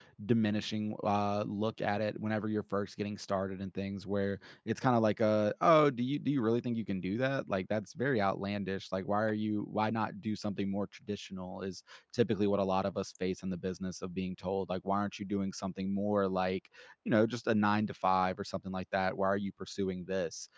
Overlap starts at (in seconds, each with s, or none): none